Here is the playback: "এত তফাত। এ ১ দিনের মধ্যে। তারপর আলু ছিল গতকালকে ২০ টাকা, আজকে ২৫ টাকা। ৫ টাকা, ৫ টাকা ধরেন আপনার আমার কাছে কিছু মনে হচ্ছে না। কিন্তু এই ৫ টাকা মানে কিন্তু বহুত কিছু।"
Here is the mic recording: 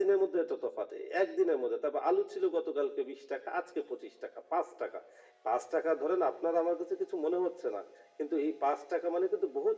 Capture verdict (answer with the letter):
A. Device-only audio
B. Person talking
A